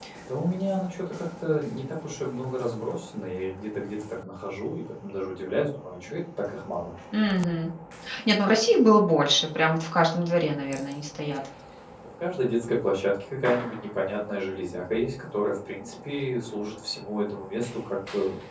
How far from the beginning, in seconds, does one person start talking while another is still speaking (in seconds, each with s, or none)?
none